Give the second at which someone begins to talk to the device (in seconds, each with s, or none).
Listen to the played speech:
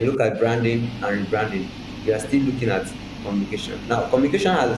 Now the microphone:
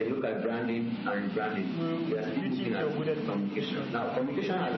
1.8 s